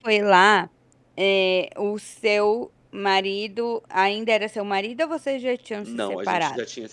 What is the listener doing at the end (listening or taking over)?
taking over